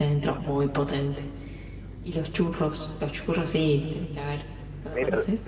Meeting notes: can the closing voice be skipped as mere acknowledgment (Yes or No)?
No